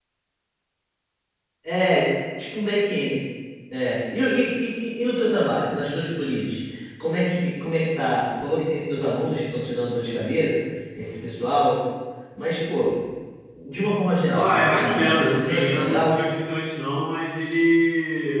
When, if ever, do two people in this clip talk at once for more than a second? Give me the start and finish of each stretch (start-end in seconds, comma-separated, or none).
14.3-16.2